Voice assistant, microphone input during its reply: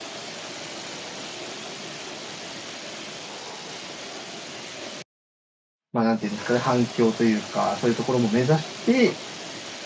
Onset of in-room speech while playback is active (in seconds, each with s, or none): 5.9 s